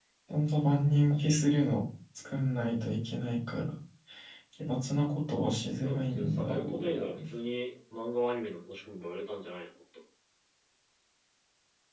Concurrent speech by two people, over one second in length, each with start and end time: 5.8-7.2

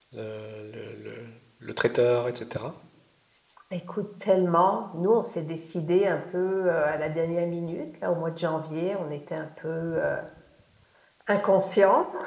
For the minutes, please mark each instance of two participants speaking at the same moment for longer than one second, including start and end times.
none

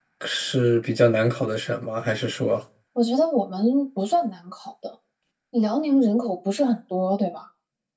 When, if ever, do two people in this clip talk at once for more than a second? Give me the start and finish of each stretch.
none

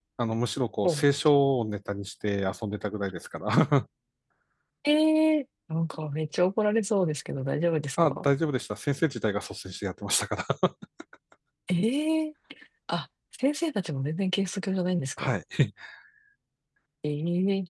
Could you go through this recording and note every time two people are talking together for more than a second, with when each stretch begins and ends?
none

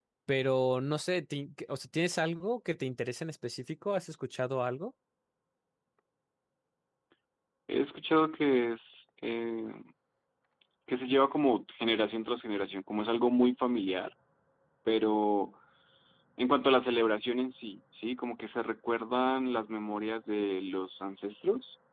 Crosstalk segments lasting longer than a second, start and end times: none

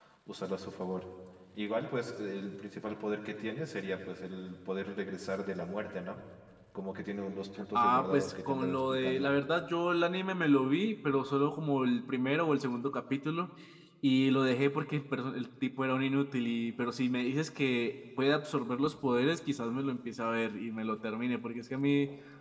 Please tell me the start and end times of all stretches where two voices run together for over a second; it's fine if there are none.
7.8-9.3

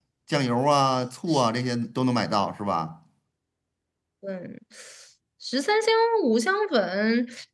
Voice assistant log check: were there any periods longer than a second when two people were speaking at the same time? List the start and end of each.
none

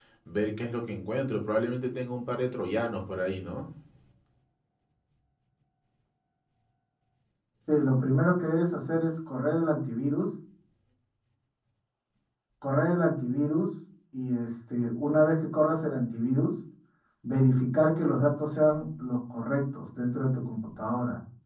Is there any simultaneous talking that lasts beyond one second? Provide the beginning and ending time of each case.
none

